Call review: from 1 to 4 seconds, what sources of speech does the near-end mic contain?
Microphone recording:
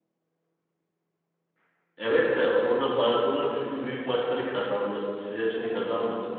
user only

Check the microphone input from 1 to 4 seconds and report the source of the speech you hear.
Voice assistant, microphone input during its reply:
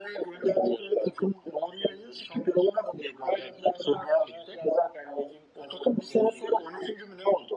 echo only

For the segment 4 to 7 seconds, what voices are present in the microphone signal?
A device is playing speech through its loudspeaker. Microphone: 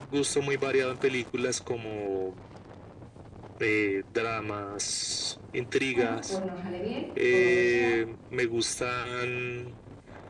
both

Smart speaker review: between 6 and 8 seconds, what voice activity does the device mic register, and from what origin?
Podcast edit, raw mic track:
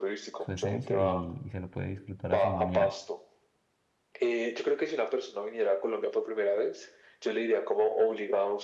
echo only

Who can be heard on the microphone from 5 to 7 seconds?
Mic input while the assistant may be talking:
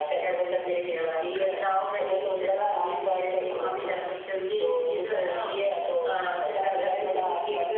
echo only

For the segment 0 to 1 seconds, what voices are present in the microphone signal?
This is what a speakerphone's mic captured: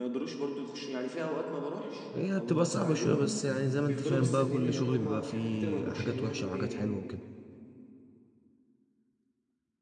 echo only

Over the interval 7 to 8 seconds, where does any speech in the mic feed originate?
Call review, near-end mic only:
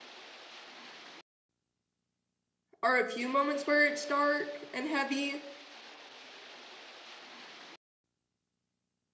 neither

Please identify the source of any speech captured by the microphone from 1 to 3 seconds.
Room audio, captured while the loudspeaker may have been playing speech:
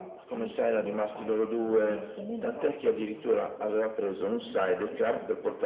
echo only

